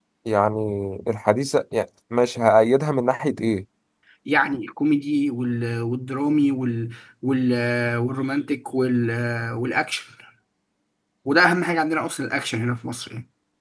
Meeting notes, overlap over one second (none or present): none